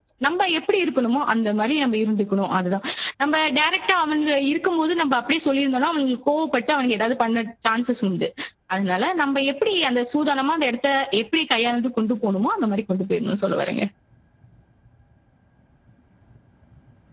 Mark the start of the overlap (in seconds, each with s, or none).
none